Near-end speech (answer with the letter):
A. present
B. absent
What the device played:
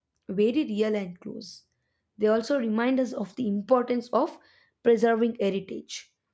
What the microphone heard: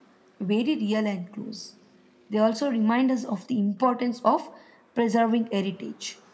B